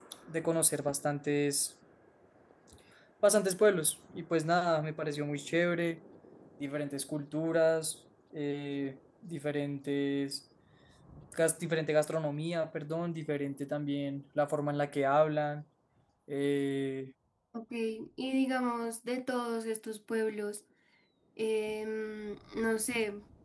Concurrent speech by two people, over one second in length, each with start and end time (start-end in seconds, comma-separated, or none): none